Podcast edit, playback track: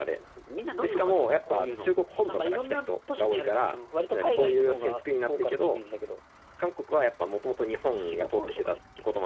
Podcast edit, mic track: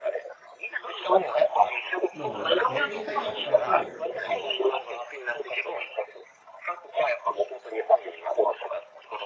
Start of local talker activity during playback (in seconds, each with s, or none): 2.1 s